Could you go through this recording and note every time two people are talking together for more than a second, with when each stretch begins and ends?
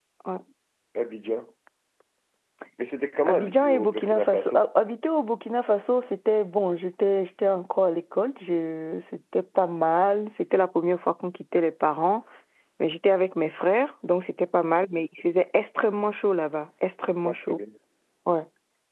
3.3-4.6

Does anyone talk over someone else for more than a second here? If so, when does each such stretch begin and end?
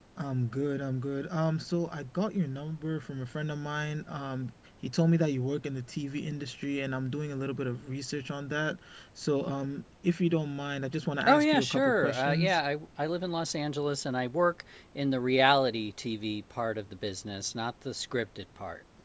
11.2-12.6

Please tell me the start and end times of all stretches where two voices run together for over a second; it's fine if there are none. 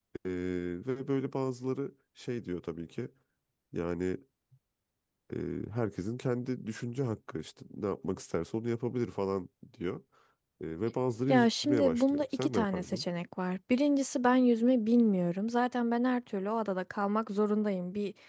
11.3-13.0

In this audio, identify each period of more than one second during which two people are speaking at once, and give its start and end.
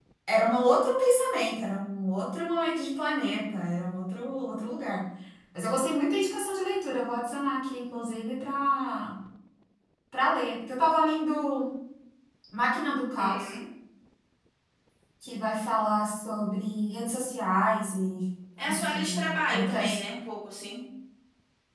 18.6-20.0

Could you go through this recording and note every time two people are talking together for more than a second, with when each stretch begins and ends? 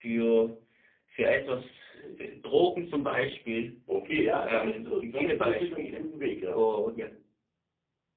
4.5-6.0

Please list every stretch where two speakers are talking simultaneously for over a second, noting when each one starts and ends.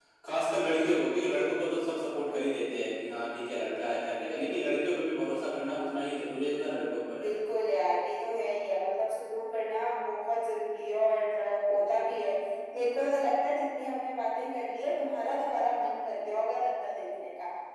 none

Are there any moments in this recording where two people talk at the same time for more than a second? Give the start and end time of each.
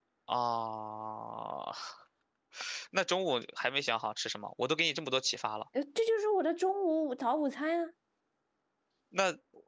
none

